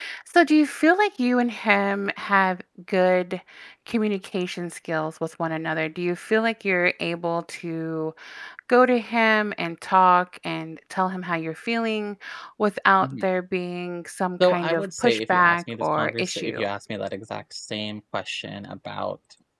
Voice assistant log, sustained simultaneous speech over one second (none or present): present